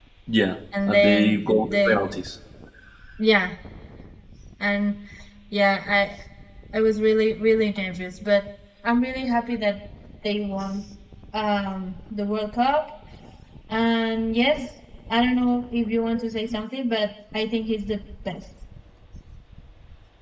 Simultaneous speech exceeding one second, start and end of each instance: 0.9-2.1

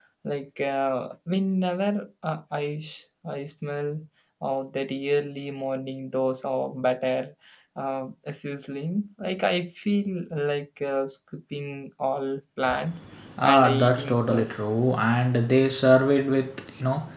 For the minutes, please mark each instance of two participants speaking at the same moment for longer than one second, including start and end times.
13.4-14.6

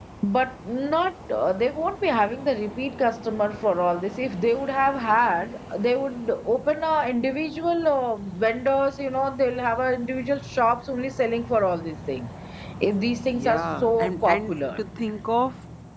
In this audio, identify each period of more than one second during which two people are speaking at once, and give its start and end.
13.3-14.8

